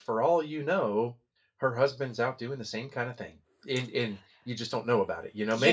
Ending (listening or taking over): taking over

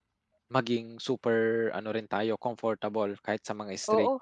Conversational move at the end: taking over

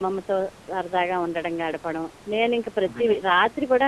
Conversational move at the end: listening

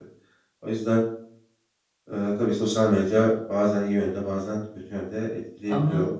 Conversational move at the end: taking over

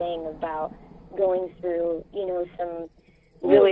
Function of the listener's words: taking over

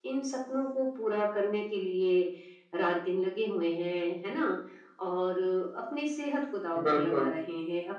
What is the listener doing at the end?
listening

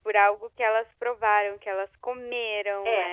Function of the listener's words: taking over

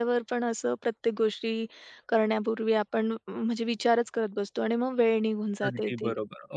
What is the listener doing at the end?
taking over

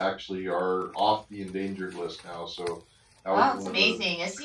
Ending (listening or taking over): taking over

